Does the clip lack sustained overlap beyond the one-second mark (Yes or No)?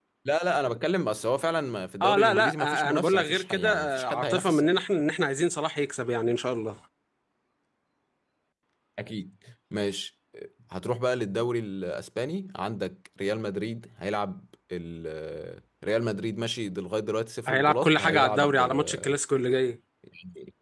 No